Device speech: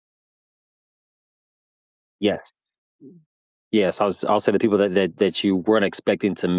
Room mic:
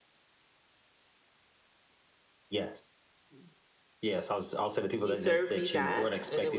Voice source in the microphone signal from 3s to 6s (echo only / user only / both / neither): both